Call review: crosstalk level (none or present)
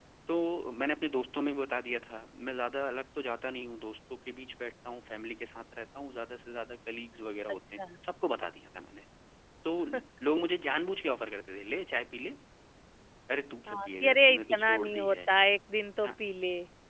present